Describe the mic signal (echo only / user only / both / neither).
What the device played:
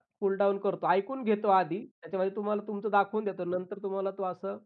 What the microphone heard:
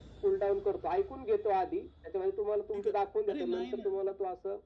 both